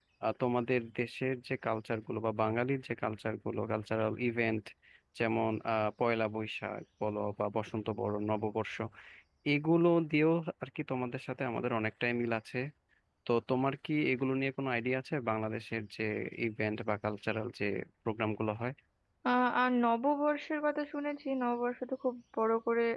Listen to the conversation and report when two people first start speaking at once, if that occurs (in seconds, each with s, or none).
none